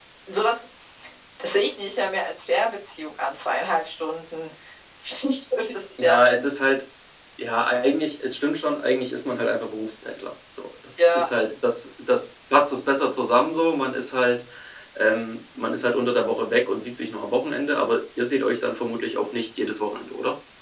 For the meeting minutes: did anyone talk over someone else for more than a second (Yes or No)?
No